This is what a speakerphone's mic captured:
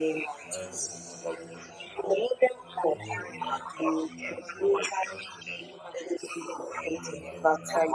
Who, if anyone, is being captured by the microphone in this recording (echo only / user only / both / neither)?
both